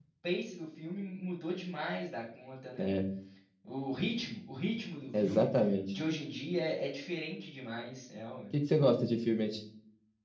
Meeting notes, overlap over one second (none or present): none